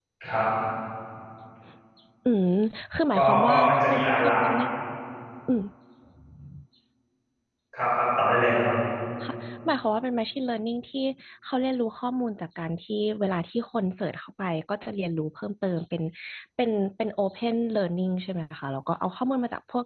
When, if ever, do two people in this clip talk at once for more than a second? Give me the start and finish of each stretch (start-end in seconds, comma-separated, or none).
3.1-4.5